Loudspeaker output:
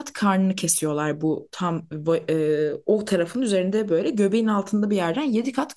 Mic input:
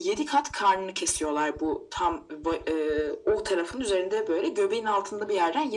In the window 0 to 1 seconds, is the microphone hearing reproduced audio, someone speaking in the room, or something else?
echo only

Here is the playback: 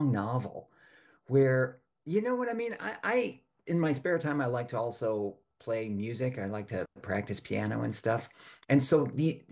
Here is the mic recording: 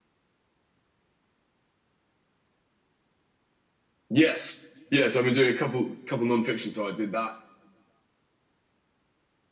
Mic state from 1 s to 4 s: neither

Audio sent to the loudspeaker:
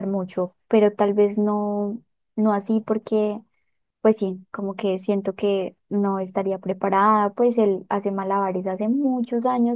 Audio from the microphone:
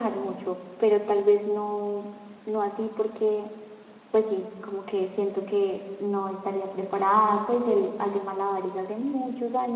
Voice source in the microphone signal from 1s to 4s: echo only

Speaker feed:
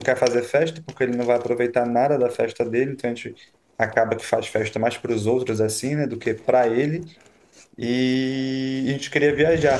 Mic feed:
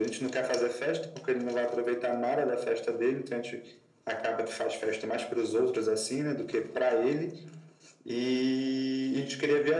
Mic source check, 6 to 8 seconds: echo only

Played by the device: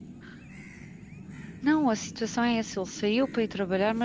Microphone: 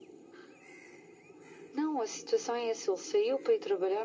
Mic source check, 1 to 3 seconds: echo only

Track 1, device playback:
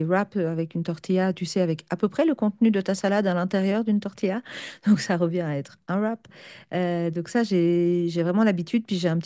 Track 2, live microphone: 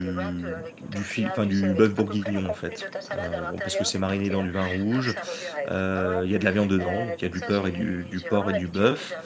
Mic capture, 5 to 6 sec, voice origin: both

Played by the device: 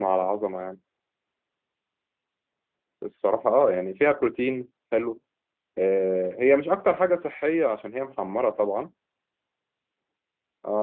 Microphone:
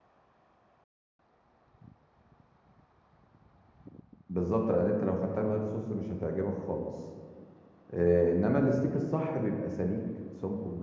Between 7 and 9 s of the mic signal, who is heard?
user only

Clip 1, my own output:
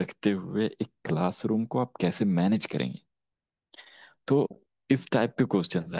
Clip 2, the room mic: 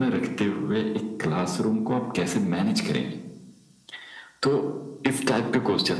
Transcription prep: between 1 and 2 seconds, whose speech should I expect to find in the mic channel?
echo only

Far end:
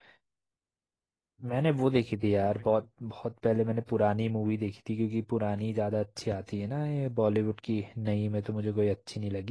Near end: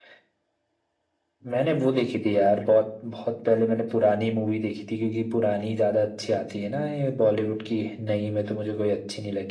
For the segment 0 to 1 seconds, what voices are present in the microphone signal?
neither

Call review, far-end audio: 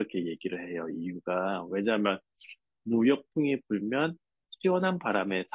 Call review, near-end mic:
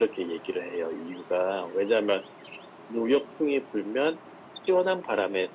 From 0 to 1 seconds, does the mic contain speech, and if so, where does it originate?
echo only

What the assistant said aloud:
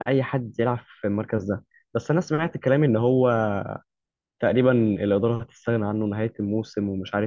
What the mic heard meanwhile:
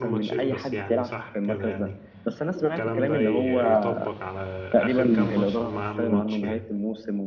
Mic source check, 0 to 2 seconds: both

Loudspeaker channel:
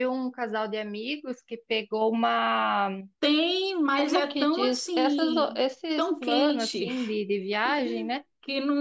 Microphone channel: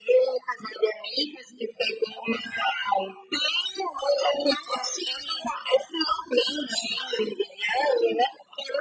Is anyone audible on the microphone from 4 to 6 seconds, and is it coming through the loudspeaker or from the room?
echo only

